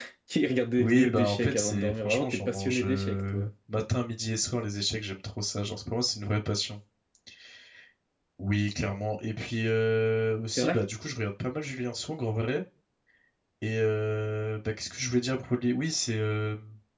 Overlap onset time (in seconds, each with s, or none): 0.8 s